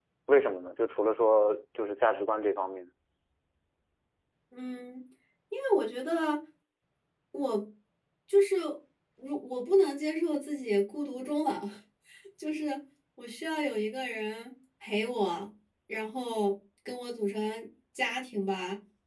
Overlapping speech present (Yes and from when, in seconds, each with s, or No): No